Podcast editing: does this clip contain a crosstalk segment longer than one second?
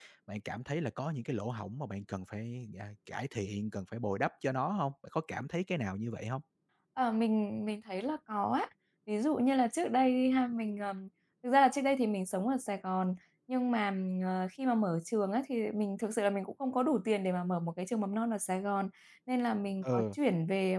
No

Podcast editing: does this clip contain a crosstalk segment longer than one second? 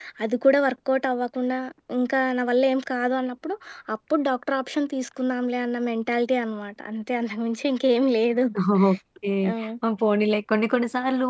No

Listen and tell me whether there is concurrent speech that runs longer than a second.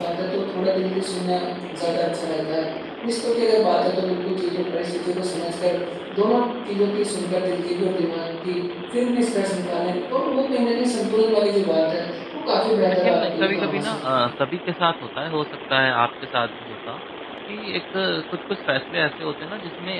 Yes, from 12.9 s

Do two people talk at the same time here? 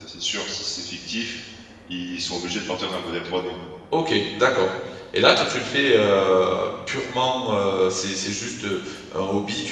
No

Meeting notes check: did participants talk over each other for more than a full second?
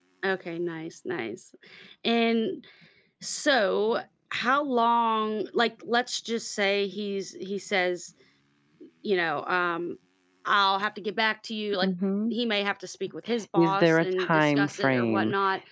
Yes, from 13.6 s

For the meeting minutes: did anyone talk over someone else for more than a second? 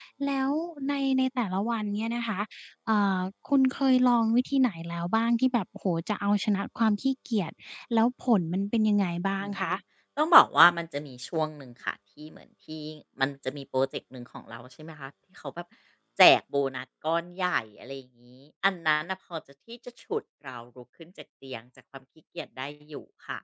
No

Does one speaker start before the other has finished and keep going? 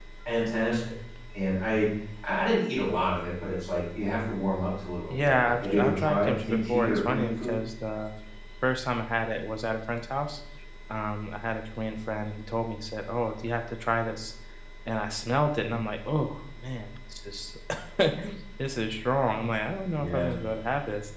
Yes, from 5.1 s

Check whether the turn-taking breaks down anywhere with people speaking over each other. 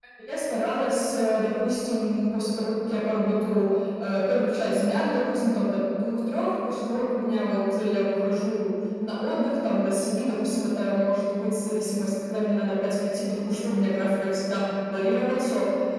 No

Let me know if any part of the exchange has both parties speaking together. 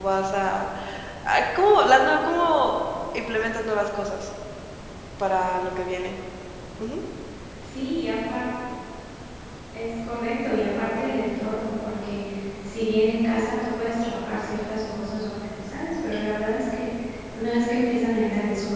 No

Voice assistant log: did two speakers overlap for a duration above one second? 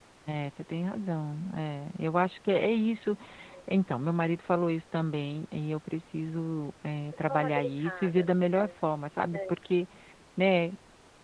Yes, from 7.3 s

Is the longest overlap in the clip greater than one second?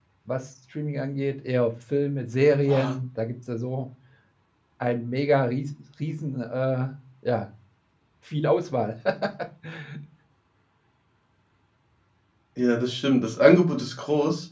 No

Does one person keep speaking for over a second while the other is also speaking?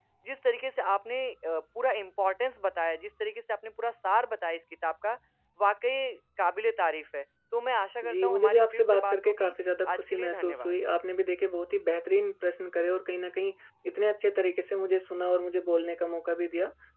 Yes, from 8.0 s

